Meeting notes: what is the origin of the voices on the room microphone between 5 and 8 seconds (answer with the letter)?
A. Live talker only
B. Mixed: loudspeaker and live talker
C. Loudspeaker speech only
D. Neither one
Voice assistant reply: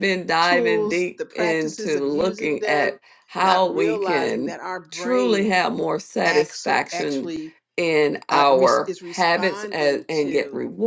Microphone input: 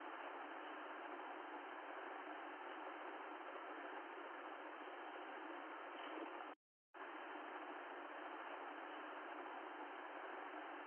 D